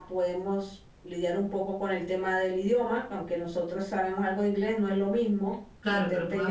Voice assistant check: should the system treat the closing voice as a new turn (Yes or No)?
Yes